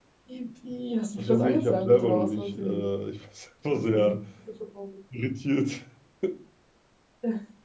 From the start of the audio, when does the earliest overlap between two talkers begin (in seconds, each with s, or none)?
1.2 s